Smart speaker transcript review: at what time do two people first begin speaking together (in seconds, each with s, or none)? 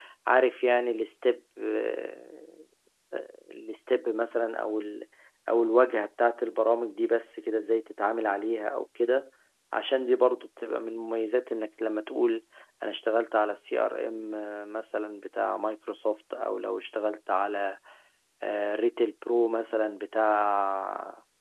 none